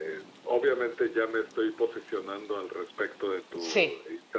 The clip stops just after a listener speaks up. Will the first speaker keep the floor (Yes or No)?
Yes